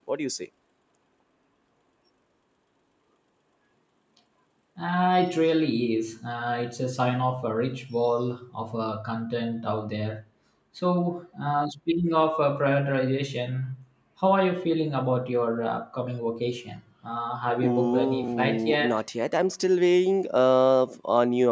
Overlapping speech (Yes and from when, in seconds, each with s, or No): Yes, from 17.6 s